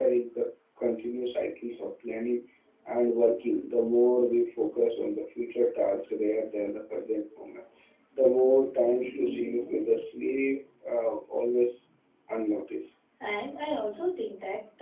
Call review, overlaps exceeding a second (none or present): none